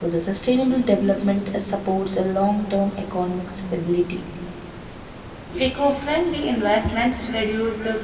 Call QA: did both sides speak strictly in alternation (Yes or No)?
Yes